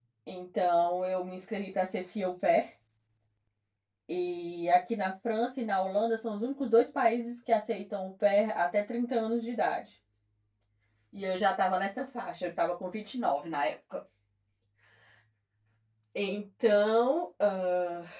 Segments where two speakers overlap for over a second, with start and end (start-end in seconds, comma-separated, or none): none